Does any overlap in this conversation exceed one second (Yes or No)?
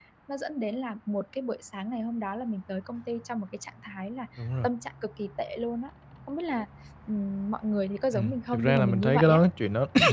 Yes